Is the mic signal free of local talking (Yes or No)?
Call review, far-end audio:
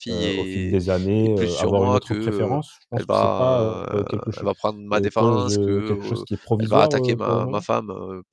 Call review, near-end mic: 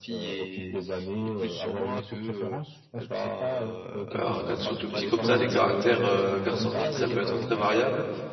No